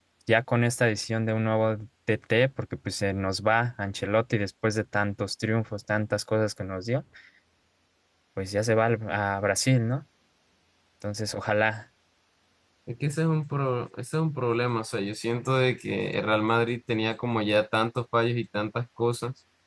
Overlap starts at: none

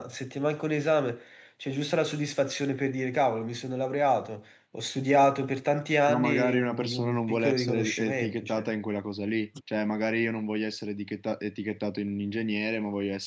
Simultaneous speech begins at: 6.1 s

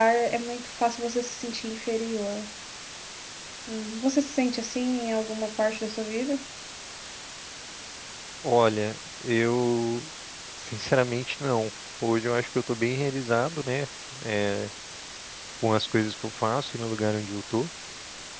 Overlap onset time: none

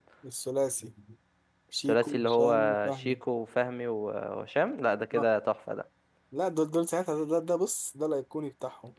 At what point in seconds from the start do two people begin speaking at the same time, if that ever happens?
1.9 s

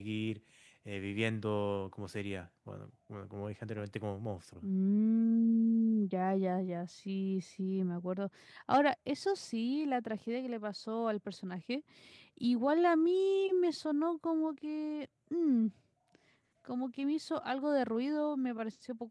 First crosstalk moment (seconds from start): none

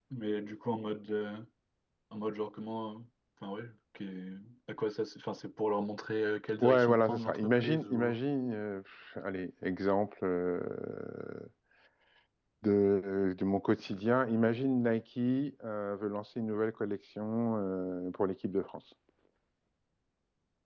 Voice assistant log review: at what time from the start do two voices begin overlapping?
6.6 s

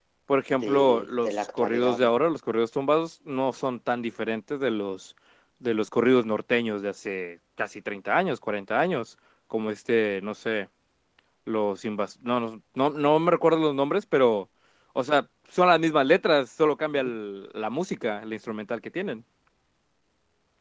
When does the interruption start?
0.5 s

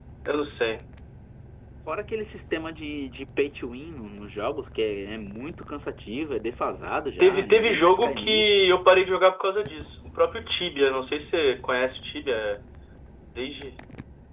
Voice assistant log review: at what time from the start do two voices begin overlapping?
7.2 s

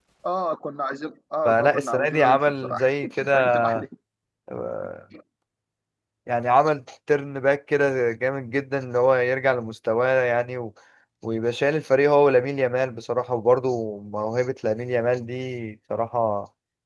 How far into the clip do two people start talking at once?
1.4 s

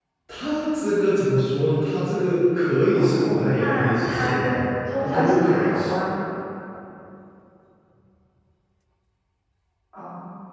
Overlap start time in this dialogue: 3.0 s

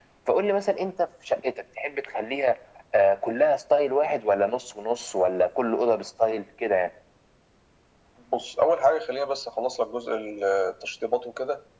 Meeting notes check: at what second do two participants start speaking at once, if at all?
none

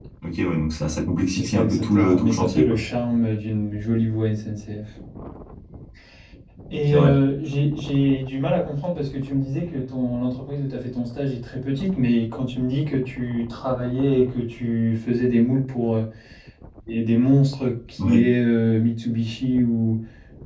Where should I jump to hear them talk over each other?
1.3 s

